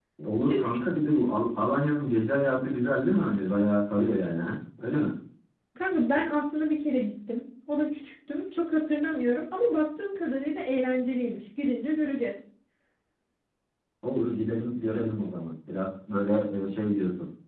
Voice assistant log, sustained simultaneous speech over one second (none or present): none